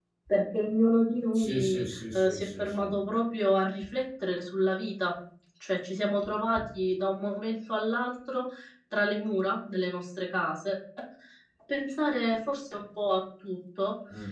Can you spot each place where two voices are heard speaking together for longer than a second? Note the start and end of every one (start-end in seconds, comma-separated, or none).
1.3-2.9